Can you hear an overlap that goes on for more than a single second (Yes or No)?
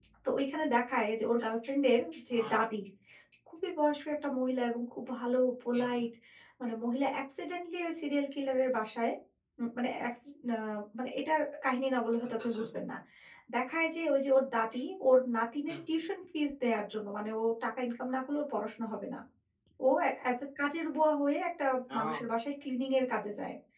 No